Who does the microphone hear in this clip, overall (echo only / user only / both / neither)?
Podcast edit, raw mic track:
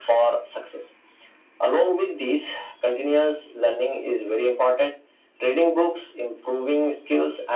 echo only